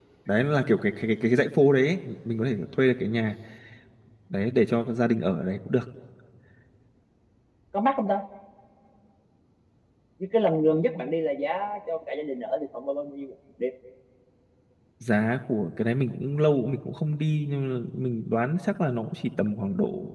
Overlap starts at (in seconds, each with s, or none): none